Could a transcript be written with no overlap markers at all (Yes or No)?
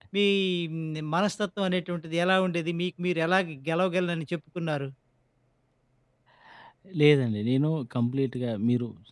Yes